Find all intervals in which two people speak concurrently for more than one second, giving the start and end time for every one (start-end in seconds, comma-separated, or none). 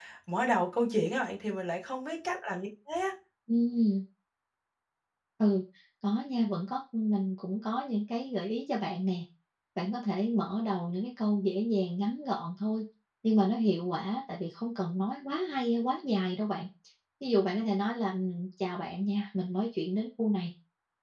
none